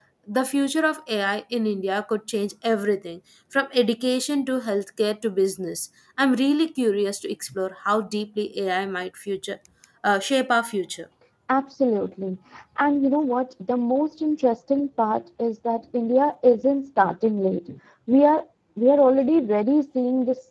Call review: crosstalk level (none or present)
none